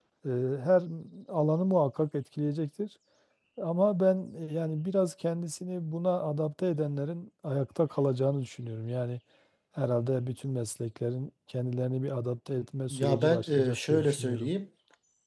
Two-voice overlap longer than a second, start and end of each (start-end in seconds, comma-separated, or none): 12.9-14.5